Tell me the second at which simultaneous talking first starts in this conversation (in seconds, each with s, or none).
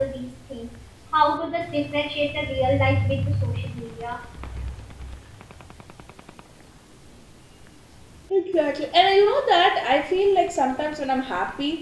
none